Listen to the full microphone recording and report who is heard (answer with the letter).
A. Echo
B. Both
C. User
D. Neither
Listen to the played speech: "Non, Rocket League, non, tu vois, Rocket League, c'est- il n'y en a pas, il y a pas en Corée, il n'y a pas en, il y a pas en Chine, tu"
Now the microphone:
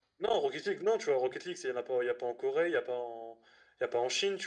A